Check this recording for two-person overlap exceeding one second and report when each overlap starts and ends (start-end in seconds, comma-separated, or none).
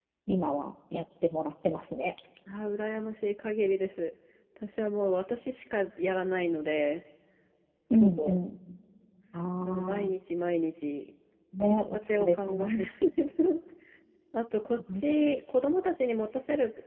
11.6-12.9